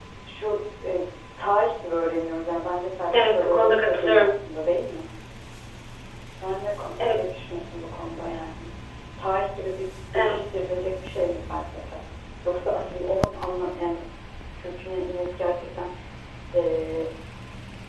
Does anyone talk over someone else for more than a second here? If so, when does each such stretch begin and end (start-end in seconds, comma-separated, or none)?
3.1-4.3